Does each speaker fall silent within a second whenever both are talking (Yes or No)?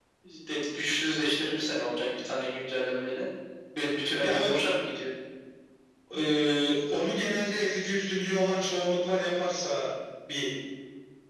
Yes